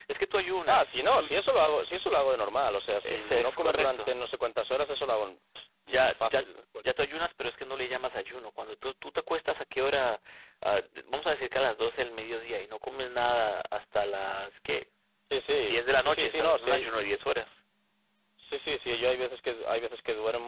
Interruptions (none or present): present